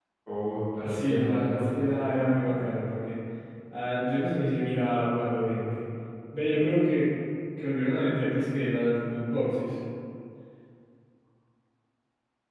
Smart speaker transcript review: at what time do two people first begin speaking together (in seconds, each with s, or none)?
0.8 s